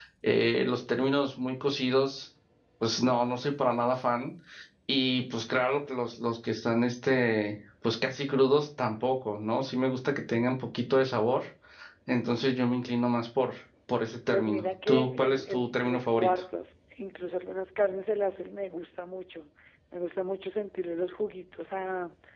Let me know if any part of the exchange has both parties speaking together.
Yes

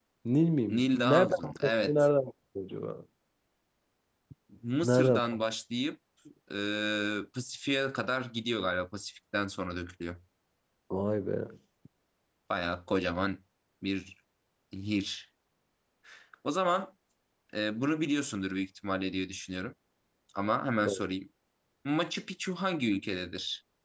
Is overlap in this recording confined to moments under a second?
No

